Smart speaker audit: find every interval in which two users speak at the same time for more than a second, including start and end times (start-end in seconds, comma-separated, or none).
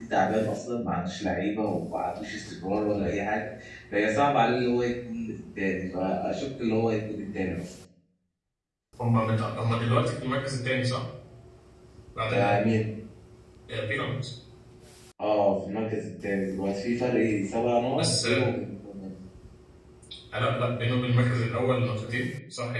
none